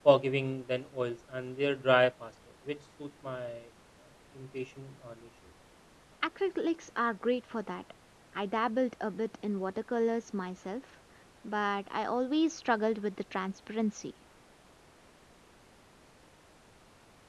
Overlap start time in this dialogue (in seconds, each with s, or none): none